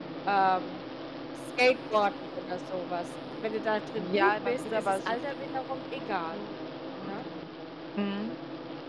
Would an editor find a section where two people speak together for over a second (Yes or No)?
Yes